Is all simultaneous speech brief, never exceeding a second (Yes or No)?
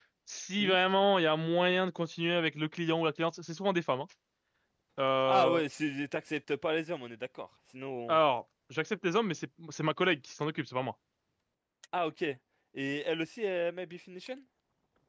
Yes